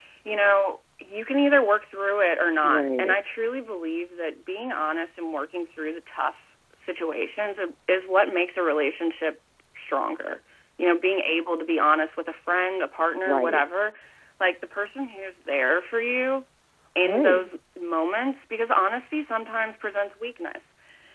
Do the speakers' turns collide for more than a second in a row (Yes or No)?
No